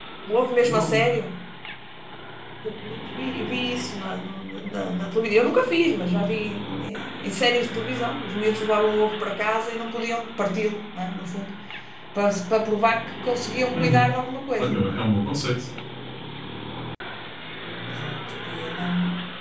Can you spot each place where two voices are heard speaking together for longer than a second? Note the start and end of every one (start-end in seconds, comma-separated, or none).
none